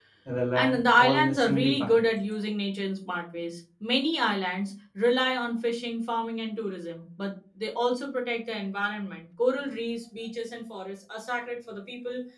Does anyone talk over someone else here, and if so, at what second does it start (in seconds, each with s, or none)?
0.5 s